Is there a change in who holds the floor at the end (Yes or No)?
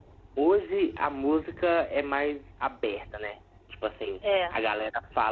No